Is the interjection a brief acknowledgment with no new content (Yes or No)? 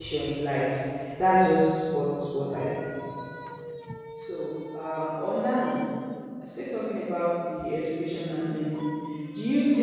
Yes